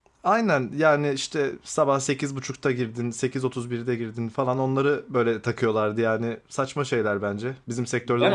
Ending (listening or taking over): taking over